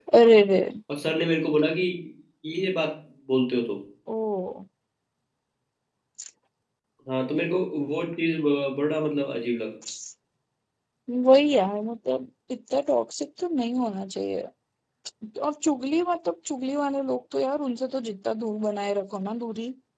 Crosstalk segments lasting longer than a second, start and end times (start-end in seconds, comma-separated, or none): none